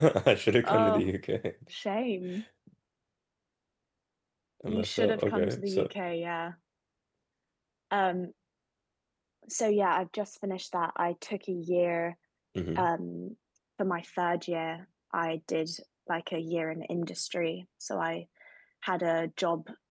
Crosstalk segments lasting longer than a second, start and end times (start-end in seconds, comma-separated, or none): 4.7-5.9